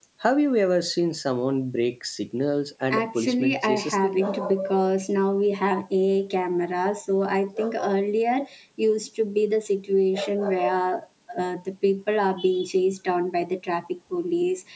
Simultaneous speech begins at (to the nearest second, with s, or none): 3 s